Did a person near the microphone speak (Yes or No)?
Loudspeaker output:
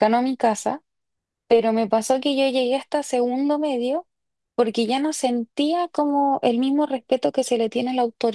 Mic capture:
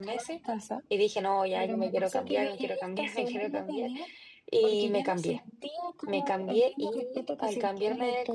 Yes